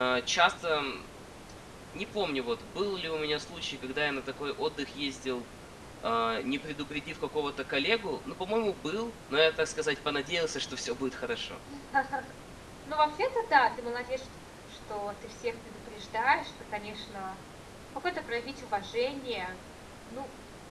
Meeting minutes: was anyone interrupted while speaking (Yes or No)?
No